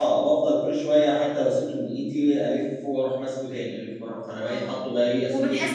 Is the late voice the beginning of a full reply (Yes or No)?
Yes